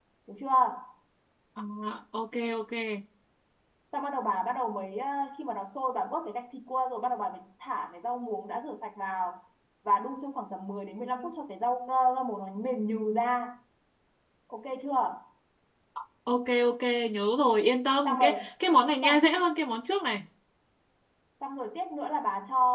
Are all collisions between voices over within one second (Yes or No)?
Yes